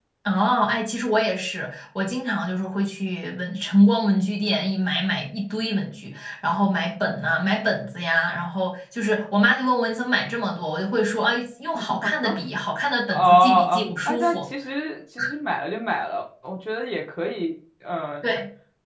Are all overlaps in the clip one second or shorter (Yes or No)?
No